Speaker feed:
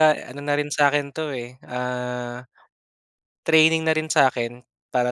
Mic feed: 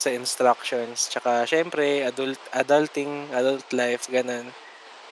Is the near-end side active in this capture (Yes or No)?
Yes